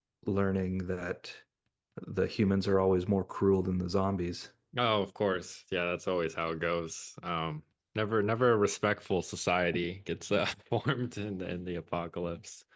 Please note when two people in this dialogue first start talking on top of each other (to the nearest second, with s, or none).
none